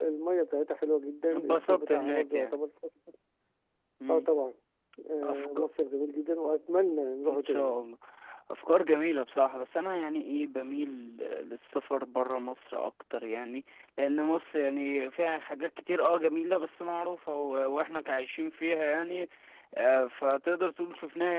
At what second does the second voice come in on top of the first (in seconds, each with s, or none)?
1.3 s